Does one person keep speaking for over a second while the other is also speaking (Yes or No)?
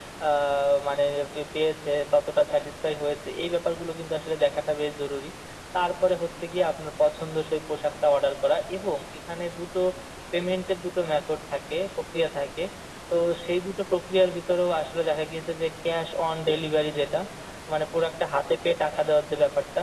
No